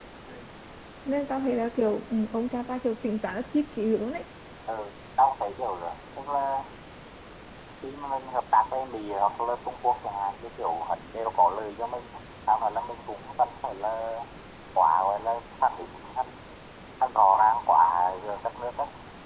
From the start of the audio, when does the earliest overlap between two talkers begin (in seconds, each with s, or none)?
none